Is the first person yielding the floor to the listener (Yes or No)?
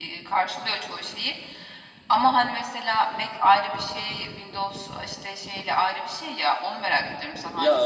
Yes